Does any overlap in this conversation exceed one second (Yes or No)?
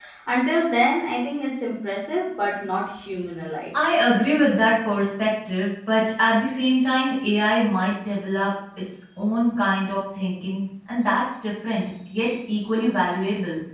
No